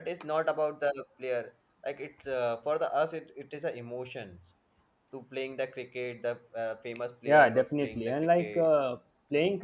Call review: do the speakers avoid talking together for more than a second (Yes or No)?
No